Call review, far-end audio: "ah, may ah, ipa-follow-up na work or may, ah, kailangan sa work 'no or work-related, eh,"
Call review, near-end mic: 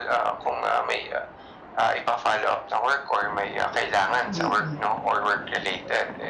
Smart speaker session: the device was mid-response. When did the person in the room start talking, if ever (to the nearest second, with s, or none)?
4 s